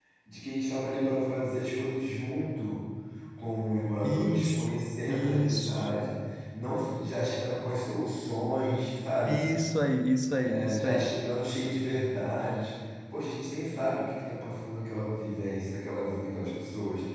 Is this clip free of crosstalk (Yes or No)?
No